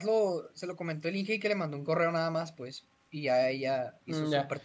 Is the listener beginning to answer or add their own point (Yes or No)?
Yes